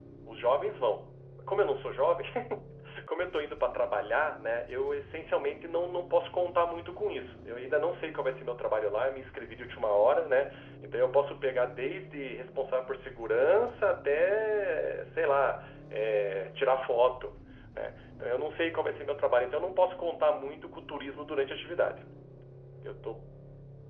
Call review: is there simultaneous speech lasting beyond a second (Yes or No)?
No